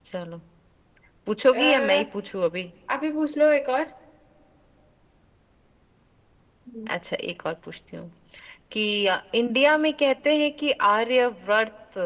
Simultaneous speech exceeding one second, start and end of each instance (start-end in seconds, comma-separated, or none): none